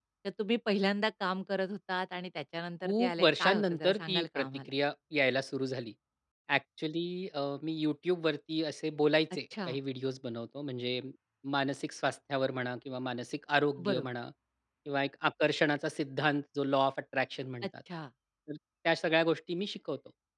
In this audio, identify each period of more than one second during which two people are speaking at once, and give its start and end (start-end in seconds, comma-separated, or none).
2.8-4.5